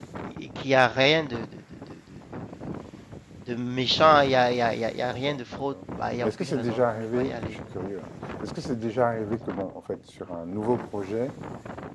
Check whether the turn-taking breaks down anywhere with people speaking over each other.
Yes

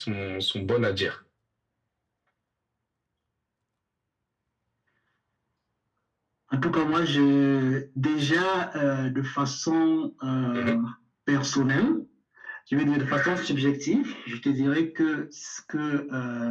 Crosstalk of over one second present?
No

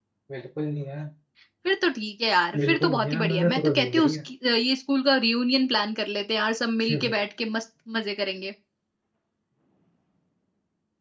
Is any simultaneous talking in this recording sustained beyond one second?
Yes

